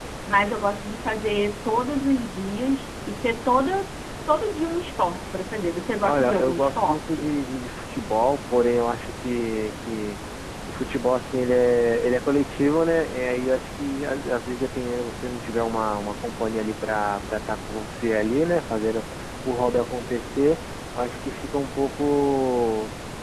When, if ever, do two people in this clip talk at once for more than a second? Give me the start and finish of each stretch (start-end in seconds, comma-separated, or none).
6.0-7.3